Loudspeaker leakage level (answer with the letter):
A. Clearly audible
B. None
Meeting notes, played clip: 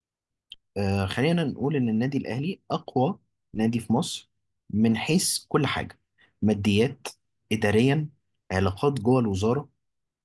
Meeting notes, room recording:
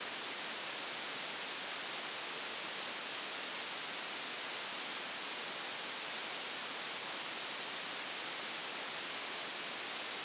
B